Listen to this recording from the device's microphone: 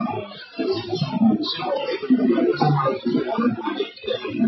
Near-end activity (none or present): none